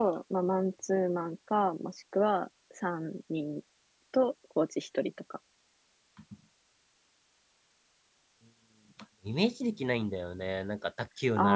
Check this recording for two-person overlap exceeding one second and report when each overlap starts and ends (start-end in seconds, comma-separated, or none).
none